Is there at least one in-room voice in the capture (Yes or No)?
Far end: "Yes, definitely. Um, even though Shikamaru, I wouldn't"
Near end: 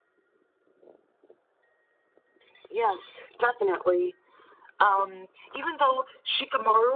No